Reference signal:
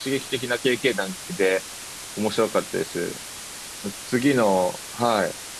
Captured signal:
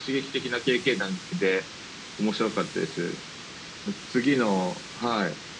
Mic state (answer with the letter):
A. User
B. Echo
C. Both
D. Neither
B